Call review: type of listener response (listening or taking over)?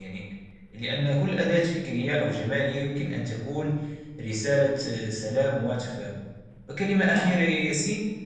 listening